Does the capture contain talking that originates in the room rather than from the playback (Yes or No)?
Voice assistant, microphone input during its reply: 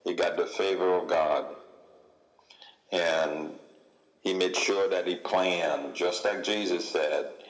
No